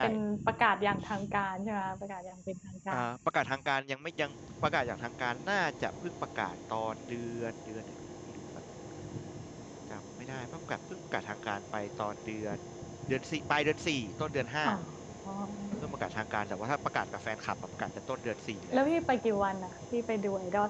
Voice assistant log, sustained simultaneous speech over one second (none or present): none